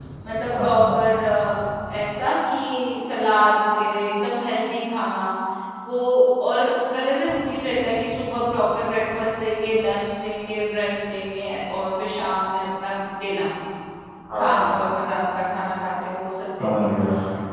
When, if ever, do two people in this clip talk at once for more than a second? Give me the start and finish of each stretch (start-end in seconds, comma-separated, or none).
none